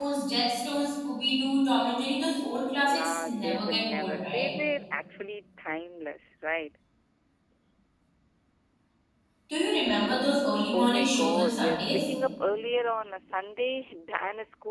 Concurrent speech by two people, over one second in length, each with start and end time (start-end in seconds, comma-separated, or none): 2.8-4.5, 10.7-12.1